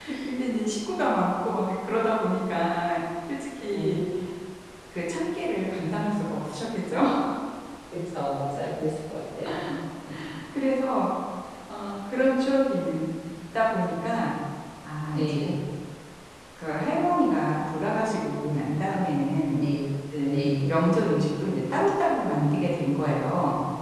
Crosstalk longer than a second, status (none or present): none